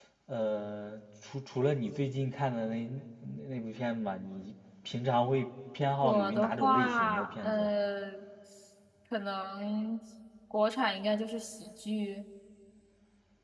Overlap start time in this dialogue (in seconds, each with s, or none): 6.0 s